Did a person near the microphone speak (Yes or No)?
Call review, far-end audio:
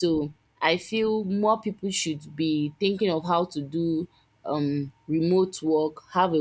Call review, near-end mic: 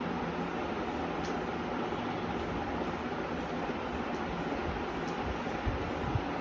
No